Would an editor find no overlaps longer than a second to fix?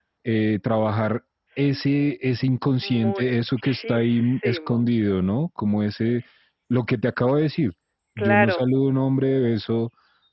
No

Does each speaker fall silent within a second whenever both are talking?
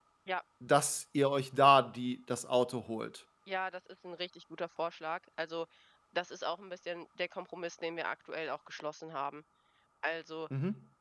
Yes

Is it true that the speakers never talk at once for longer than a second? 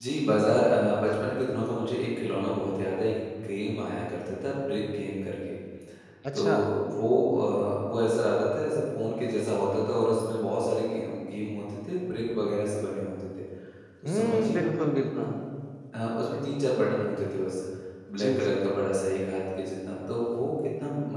No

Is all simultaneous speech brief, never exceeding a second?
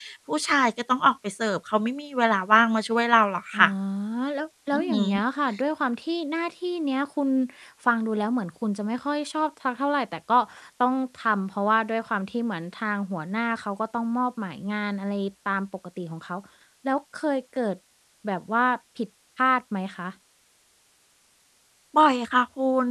Yes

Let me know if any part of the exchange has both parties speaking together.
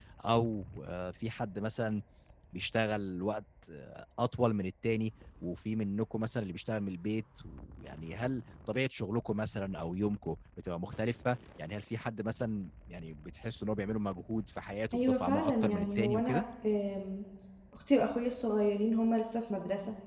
Yes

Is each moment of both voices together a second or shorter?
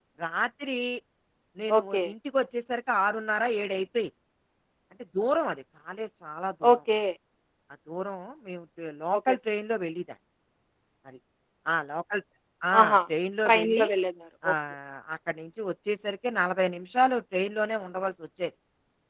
Yes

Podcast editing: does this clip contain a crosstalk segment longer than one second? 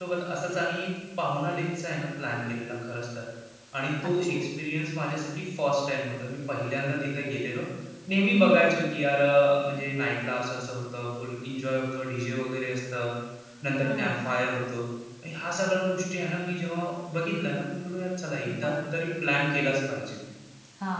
No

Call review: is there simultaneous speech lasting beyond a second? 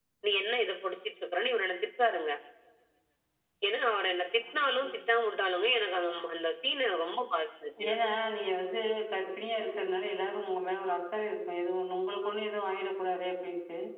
No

